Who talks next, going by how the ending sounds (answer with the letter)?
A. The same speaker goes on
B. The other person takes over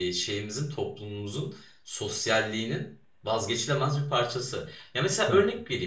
A